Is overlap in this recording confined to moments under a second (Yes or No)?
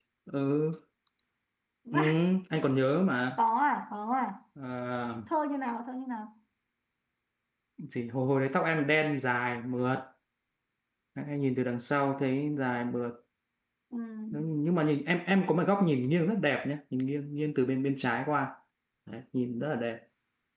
Yes